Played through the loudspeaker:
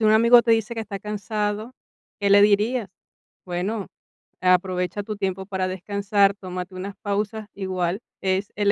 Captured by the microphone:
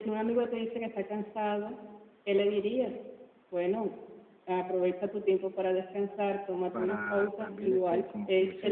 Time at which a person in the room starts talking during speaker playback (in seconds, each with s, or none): 6.7 s